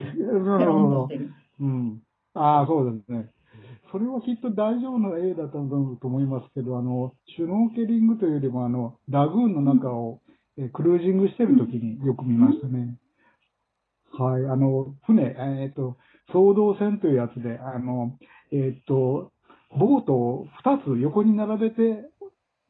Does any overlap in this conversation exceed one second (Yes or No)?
No